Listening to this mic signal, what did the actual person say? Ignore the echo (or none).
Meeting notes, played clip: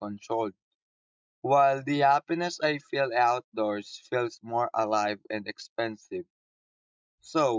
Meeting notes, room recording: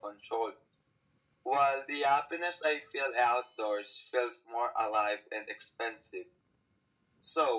none